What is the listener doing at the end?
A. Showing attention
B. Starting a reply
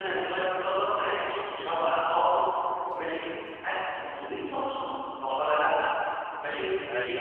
A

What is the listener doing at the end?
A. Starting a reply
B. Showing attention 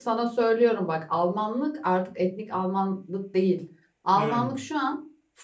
B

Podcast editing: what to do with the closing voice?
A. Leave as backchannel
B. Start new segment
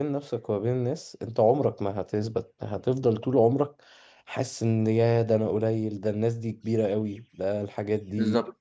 B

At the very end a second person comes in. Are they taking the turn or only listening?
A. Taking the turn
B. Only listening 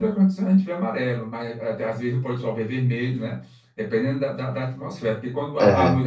B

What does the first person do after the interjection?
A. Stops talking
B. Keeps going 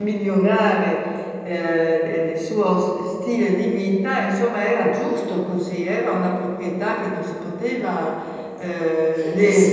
A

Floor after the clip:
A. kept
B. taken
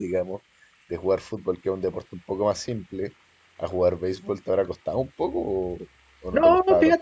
B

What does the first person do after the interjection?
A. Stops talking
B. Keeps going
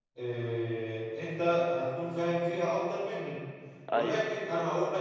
B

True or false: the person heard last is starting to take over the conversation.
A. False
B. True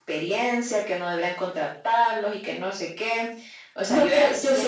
B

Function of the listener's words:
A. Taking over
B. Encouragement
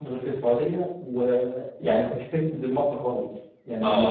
A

